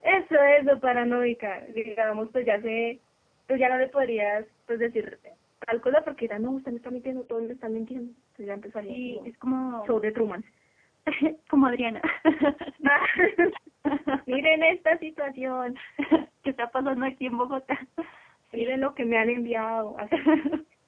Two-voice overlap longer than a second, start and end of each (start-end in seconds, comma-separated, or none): none